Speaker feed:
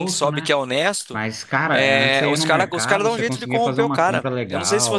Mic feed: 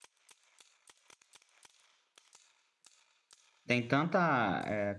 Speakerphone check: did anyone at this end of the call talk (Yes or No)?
Yes